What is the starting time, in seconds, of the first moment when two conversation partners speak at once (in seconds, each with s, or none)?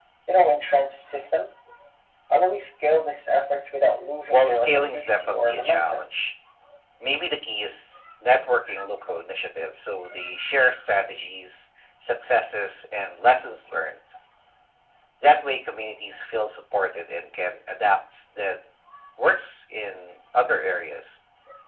4.3 s